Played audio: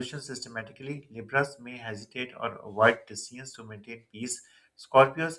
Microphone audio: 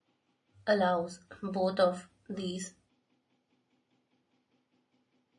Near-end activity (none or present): present